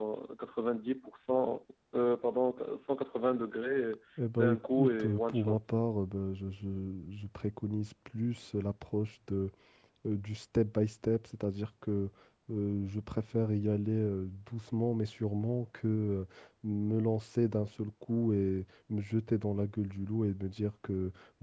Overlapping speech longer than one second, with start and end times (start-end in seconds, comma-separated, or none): 4.3-5.6